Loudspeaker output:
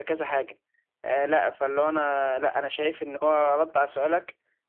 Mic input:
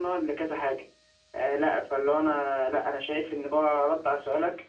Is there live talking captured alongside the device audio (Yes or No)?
No